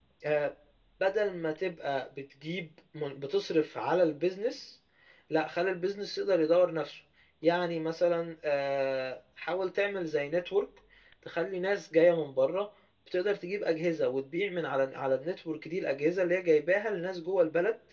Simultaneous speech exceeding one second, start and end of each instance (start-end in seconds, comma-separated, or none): none